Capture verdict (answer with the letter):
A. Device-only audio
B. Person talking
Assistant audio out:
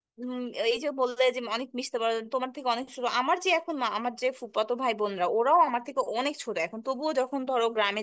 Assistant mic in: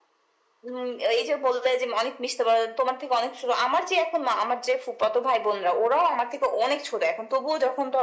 A